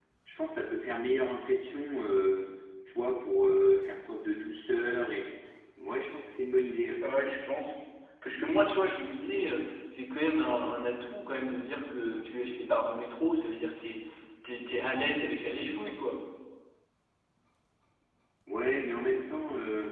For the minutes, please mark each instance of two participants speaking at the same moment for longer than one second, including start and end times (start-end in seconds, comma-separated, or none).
none